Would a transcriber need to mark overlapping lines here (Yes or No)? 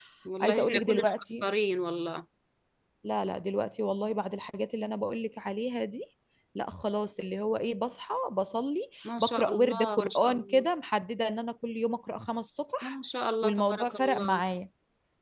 Yes